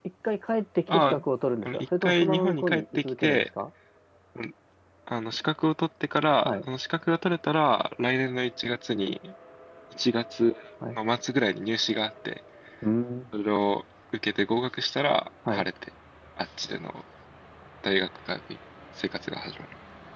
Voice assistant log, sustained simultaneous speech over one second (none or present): present